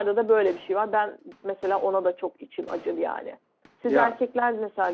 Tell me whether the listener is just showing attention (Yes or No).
Yes